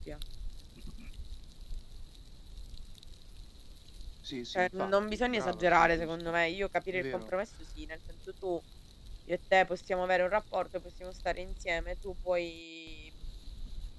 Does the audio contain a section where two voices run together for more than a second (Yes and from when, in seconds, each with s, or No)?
Yes, from 4.6 s